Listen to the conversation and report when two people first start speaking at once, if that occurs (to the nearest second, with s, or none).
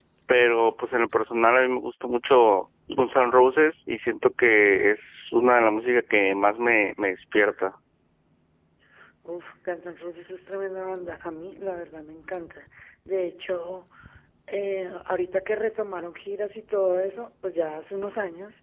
none